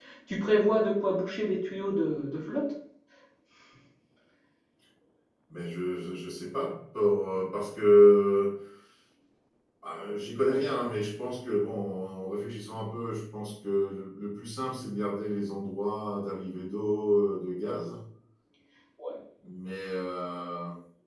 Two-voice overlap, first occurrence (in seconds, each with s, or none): none